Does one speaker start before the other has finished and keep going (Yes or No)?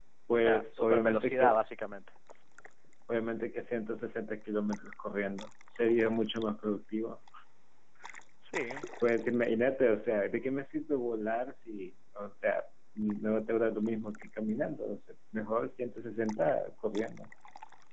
Yes